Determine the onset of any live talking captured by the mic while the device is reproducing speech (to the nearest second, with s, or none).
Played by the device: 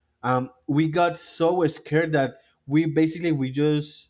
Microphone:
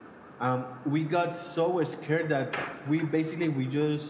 none